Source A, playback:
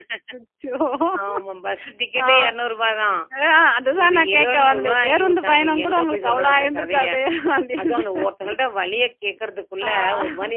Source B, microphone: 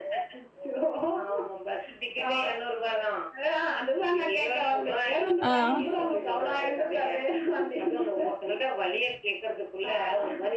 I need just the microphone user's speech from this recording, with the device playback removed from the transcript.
ஆ.

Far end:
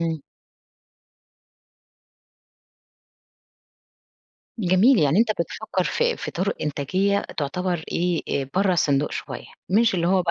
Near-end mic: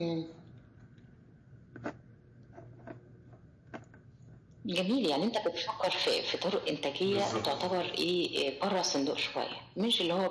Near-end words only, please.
بالضبط.

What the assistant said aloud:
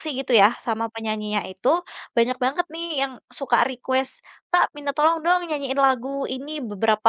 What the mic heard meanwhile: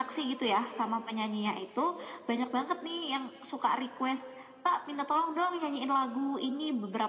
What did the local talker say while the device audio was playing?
none

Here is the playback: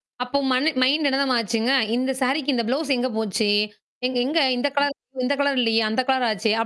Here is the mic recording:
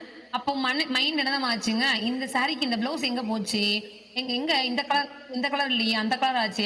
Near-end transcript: none

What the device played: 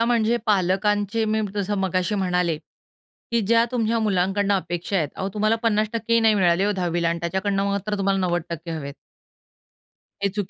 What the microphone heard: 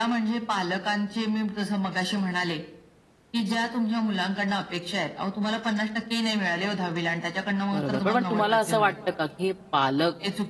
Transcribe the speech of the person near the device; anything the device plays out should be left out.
बरोबर. पण मग तुम्हाला असं वाटतं का, की हे पालक,

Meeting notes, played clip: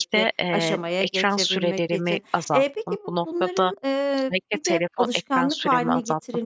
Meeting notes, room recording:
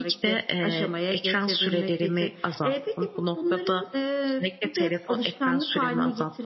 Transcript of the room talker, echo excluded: none

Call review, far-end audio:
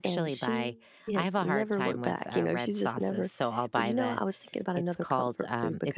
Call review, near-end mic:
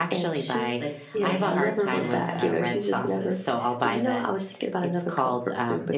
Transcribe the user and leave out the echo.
like the tomatoes. Yeah.

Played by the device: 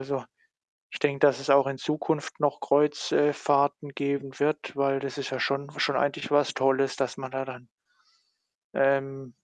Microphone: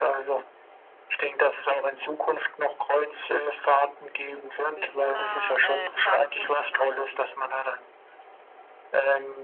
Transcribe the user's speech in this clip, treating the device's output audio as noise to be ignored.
Bewohner, äh, so stark protestieren auch.

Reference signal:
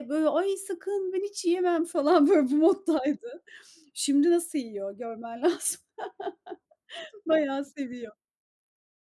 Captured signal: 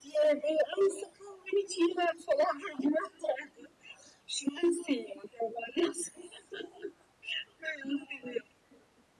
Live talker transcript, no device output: none

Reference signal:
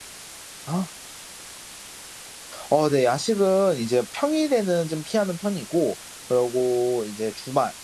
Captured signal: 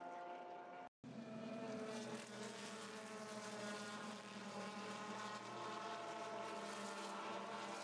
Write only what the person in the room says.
none

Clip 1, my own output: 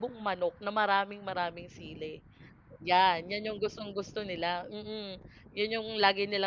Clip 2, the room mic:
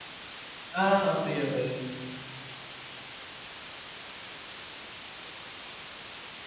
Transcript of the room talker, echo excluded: Ah, okey-okey.

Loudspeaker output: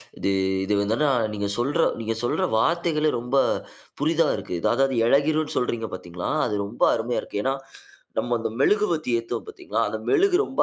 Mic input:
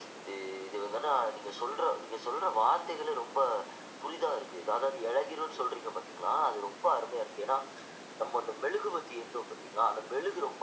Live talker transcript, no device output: none

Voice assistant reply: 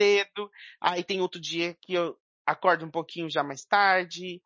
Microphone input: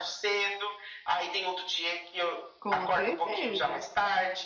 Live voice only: Com certeza.

